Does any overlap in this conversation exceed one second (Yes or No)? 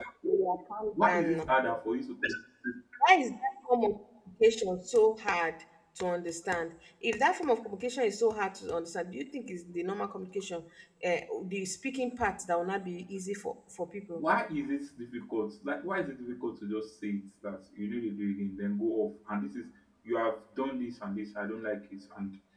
No